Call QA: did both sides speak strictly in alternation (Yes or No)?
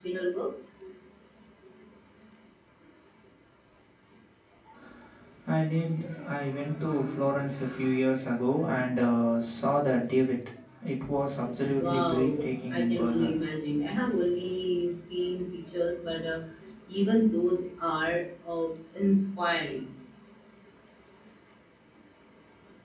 No